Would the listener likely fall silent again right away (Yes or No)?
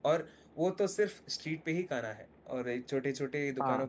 Yes